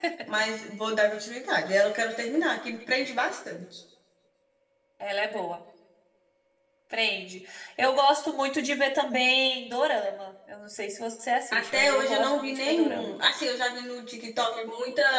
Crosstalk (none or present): present